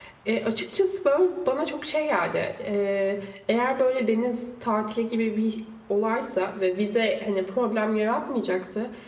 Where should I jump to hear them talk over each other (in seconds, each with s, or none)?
none